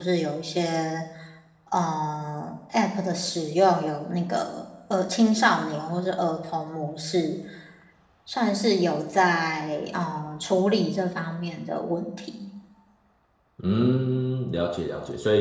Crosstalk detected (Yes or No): No